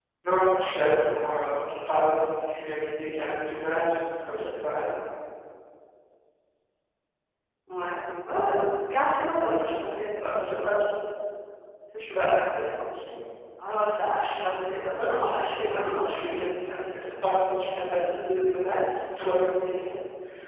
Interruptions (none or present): present